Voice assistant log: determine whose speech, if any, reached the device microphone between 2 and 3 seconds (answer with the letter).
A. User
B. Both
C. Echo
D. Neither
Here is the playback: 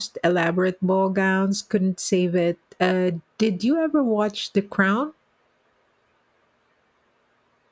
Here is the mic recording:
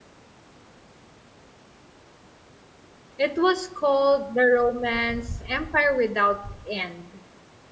D